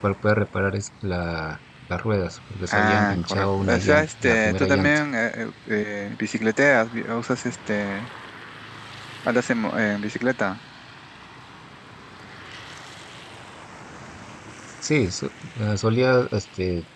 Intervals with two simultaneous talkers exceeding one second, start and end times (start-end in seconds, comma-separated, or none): 2.7-5.0